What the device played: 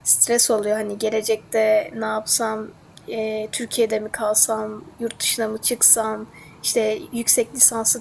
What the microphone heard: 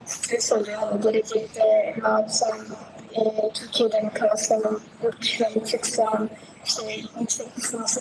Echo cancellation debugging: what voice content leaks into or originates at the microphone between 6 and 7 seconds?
echo only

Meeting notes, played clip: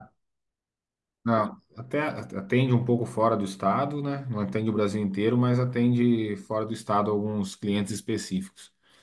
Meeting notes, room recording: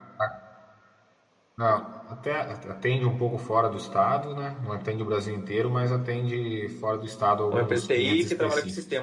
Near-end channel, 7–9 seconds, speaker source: both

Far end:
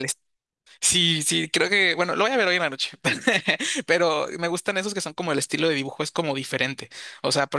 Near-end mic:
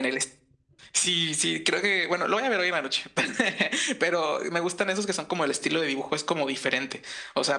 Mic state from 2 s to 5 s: echo only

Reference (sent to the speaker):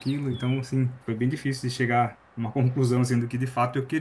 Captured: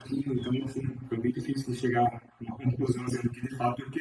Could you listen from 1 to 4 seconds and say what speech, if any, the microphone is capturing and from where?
echo only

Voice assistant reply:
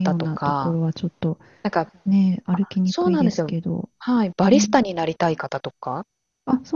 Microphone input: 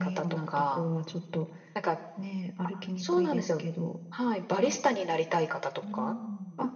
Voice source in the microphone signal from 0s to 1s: echo only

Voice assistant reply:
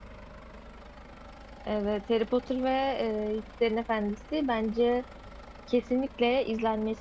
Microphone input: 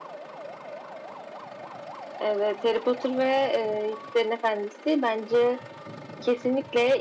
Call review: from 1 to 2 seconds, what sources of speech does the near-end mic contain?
neither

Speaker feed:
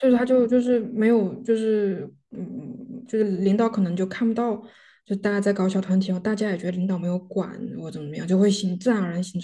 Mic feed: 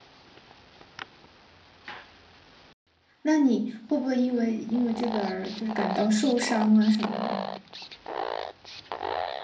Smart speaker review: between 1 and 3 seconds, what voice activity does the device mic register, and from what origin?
neither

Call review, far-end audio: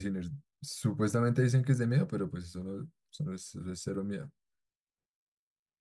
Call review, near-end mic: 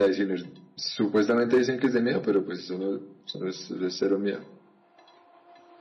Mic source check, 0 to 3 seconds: echo only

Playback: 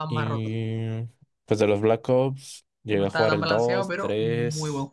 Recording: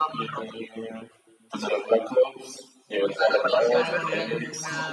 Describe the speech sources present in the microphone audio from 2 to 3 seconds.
echo only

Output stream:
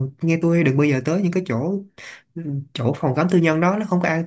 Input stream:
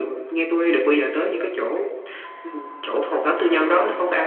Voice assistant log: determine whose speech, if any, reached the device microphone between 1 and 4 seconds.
echo only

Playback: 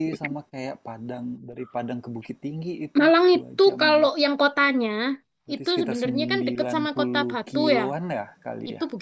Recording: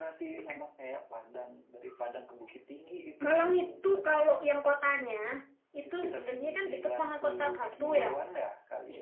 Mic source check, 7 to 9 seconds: echo only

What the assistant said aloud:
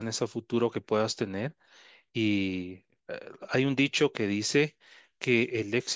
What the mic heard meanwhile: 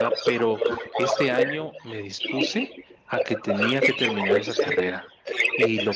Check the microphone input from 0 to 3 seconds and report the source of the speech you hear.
both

